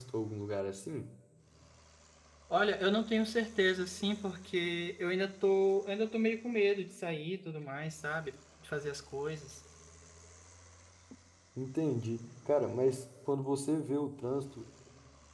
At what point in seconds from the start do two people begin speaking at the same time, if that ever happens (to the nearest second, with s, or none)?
none